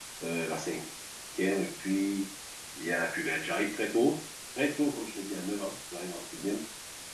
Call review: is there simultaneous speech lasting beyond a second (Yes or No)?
No